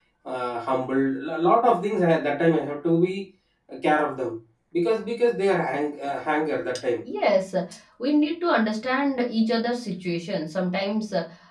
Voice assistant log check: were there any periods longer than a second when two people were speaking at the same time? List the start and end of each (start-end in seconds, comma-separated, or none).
none